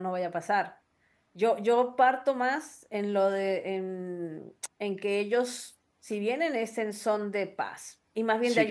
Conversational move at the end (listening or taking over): taking over